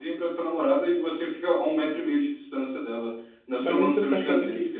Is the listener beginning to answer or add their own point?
Yes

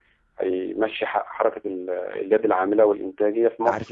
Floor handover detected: Yes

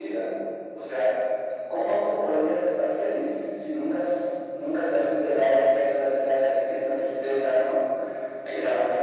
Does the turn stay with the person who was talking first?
Yes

